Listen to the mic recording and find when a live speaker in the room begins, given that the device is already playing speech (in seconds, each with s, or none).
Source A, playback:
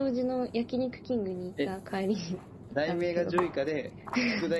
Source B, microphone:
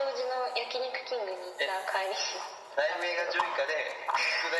none